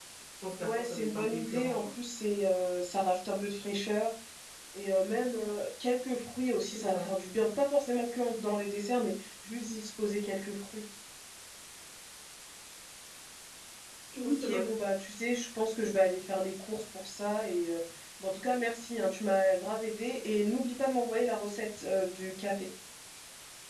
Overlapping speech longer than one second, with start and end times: 0.6-1.8

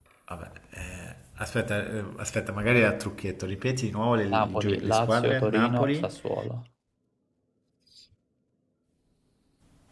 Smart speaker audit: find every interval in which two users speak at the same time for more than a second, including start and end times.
4.3-6.1

